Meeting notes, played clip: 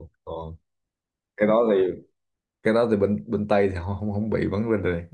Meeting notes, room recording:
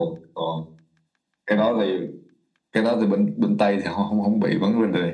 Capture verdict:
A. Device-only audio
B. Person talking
A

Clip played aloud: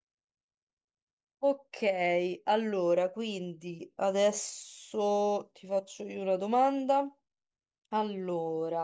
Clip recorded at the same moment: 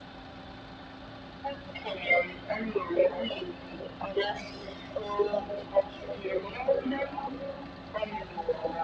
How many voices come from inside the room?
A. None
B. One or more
A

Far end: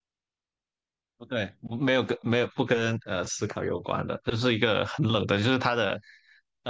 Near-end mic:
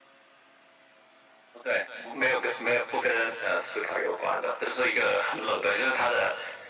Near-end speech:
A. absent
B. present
A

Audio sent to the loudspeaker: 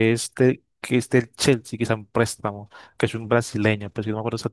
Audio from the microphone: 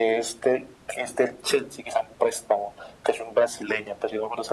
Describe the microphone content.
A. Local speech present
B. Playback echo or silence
B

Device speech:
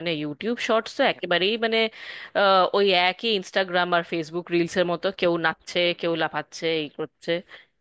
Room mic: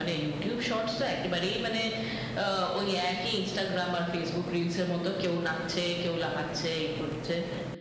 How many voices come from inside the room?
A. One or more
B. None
B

